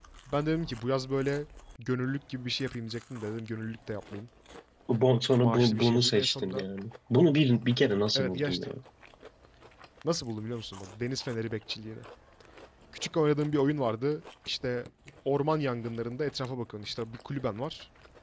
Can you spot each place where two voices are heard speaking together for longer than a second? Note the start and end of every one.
5.4-6.6

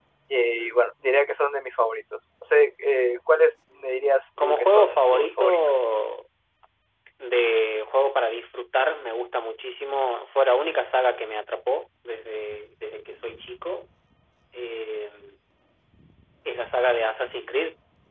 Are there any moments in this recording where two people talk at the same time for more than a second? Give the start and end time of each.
4.4-5.6

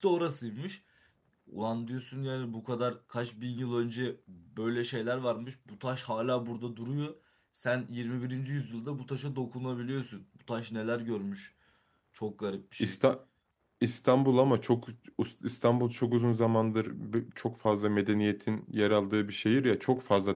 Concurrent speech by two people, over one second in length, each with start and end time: none

